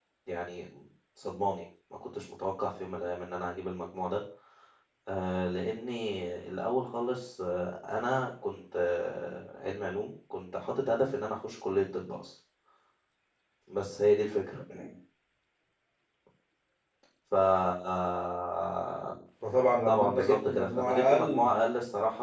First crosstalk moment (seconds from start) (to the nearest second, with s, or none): 20 s